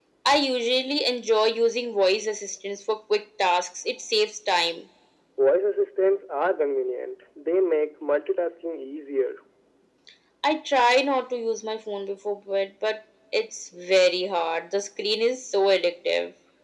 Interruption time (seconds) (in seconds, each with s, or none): none